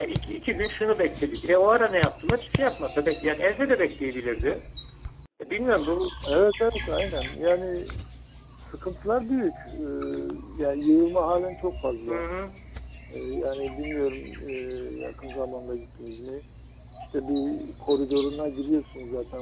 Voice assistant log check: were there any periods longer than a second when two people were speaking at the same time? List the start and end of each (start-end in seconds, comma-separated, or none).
none